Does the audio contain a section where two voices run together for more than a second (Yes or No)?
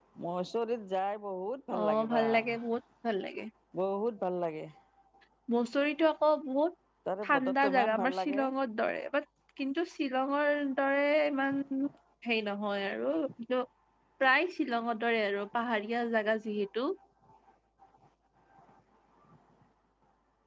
Yes